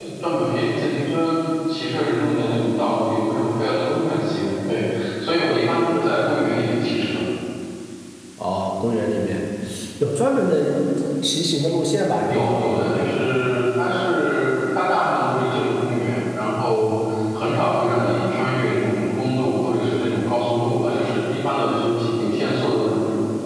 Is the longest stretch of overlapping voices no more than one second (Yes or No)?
Yes